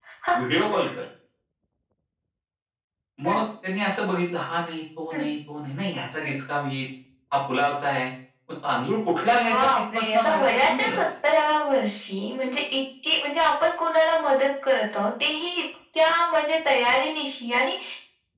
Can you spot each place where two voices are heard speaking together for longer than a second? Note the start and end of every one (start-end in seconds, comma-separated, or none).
9.3-11.0